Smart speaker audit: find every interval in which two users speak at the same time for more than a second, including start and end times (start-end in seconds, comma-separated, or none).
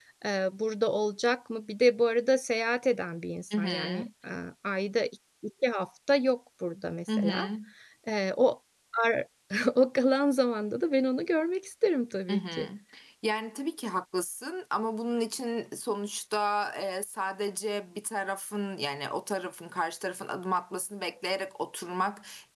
none